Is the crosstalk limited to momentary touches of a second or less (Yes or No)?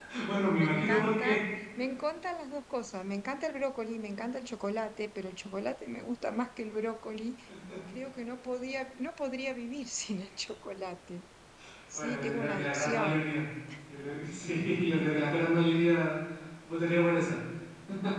No